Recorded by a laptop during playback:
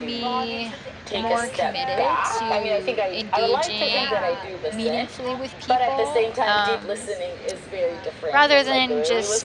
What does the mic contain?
both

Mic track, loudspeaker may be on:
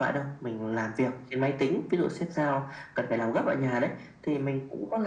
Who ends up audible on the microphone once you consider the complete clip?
echo only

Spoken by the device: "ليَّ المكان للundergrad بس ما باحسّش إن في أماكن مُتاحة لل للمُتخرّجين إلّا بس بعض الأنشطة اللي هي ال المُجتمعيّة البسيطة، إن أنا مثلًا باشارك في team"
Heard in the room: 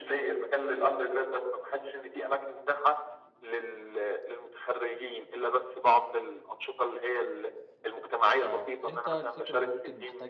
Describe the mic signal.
both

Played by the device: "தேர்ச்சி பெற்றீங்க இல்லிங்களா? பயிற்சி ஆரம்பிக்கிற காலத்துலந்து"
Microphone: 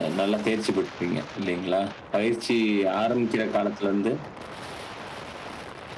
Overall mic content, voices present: echo only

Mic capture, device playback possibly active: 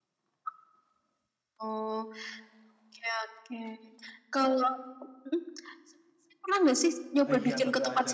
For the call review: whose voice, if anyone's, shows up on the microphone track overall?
both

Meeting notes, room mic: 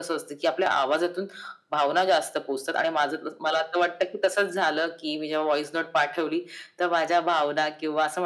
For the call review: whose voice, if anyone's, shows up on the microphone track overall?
echo only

